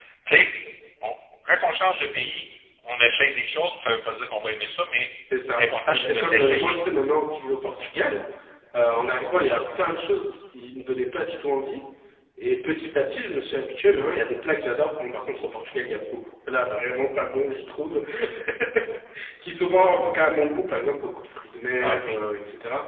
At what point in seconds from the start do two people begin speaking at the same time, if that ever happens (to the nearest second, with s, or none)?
6 s